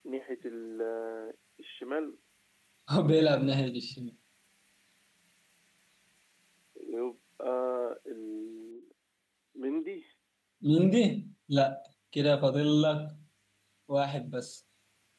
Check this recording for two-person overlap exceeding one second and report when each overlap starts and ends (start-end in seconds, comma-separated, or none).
none